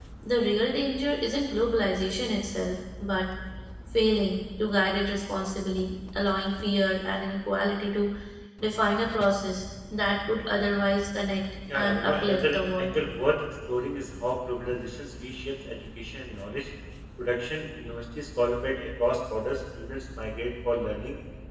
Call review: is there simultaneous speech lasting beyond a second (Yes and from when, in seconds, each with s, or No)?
Yes, from 11.7 s